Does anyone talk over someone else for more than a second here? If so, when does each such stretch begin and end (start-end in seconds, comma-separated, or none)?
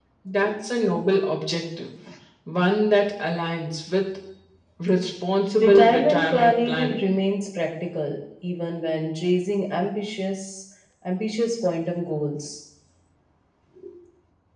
5.6-7.0